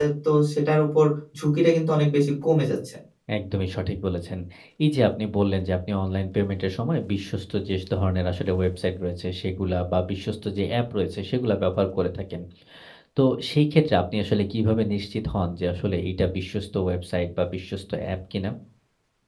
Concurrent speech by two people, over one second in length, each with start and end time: none

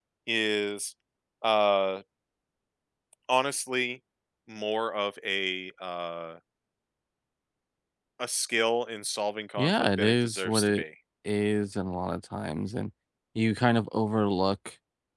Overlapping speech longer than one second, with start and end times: 9.6-10.8

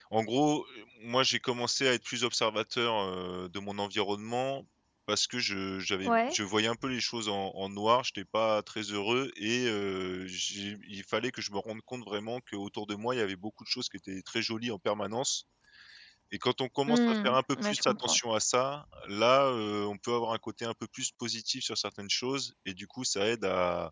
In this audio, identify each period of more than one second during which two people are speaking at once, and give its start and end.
16.9-18.2

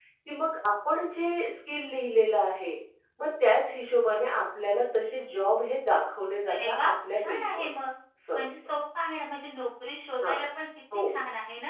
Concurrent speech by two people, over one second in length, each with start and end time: 6.5-7.7

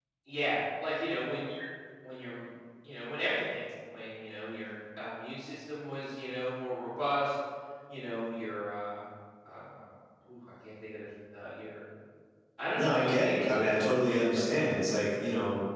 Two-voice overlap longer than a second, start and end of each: 12.8-14.0

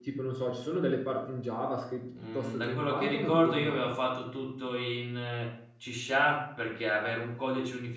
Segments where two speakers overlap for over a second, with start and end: 2.3-3.8

